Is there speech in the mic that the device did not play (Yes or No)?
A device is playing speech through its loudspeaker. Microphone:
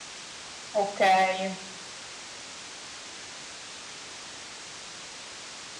Yes